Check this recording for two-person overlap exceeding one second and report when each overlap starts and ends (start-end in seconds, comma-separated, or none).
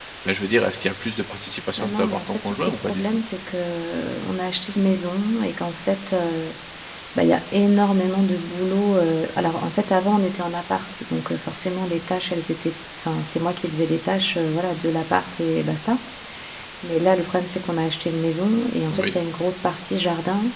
1.8-3.2